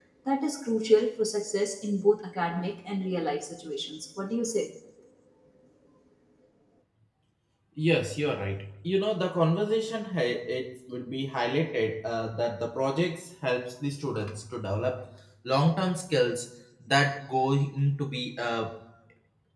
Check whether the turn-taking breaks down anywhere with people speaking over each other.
No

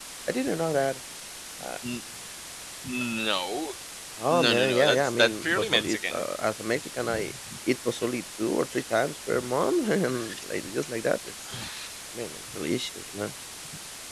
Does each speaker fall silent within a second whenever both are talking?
No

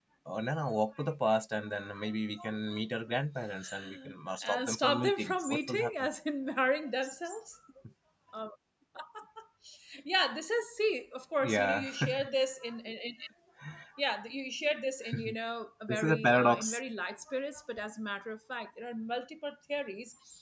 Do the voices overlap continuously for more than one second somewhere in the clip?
Yes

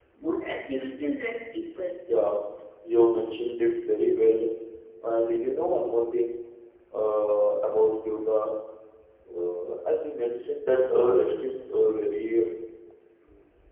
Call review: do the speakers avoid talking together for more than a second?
Yes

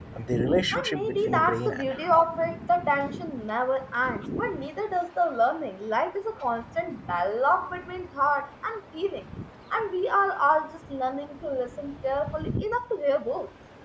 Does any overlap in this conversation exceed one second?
Yes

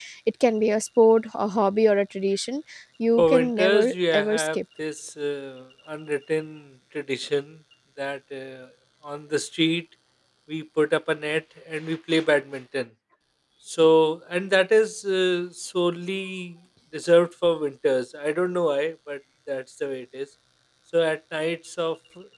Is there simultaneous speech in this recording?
Yes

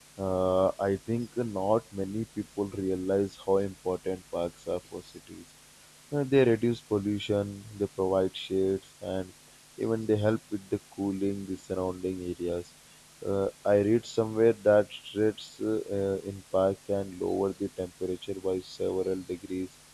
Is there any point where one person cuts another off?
No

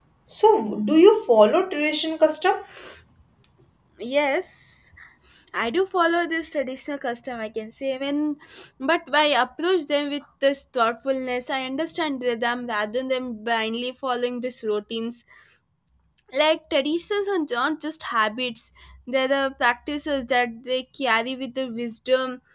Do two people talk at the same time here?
No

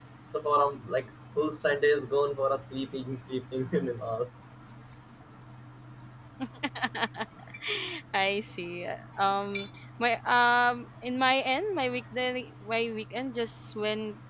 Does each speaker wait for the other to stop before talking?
Yes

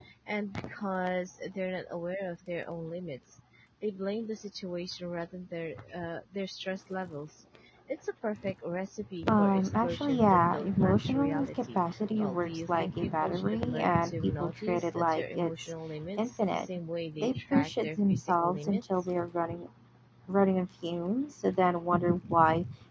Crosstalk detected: Yes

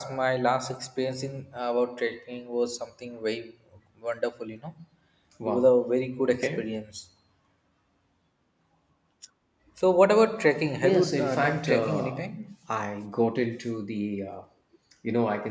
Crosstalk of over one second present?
Yes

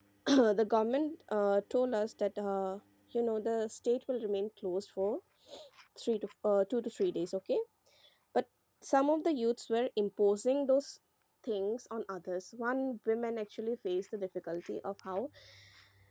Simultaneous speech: No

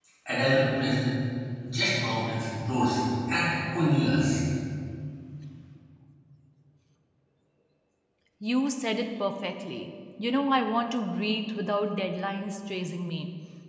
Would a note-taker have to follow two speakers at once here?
No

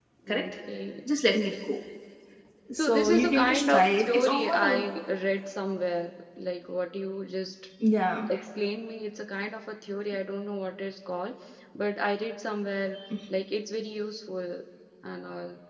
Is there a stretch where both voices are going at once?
Yes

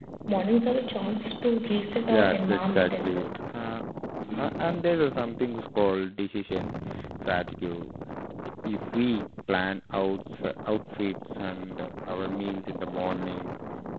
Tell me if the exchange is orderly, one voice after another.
No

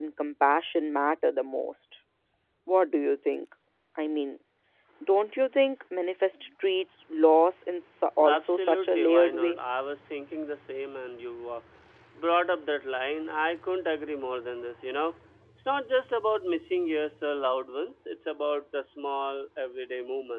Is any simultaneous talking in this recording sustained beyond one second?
Yes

